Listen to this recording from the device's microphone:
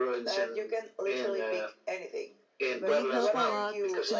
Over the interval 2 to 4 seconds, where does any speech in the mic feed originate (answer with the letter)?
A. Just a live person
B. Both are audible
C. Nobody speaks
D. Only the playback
B